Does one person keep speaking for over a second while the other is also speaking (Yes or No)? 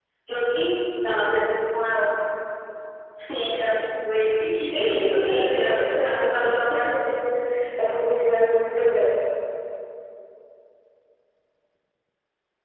Yes